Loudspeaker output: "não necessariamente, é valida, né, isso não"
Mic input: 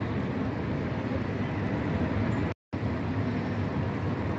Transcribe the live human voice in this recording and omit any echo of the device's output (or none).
none